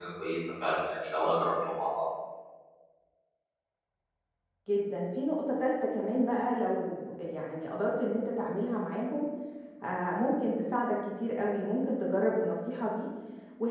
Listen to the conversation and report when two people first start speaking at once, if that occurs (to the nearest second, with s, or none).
none